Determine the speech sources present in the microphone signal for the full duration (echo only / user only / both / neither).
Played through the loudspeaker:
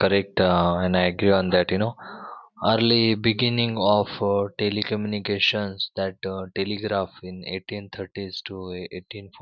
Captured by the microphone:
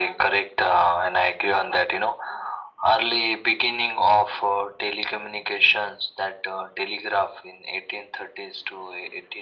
echo only